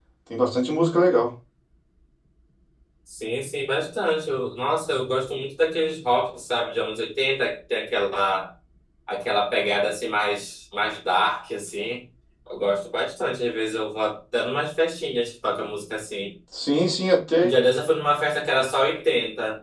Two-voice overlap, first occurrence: none

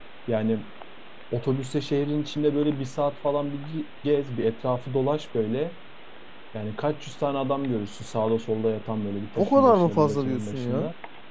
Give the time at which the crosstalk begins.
9.4 s

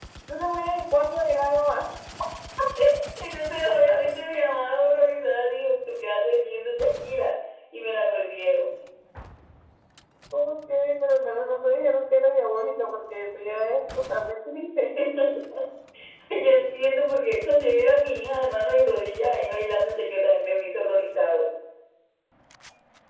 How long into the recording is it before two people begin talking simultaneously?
none

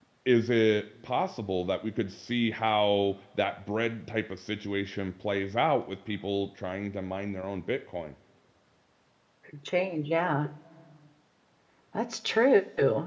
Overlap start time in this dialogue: none

